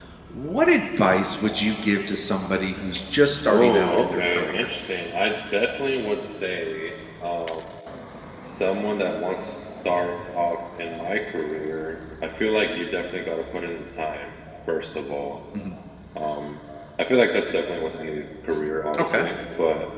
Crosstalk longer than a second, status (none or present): present